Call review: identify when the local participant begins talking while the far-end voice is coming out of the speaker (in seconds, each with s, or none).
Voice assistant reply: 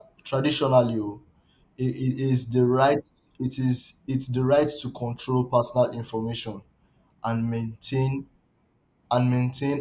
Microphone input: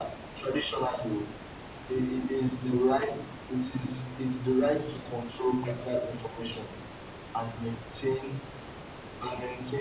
none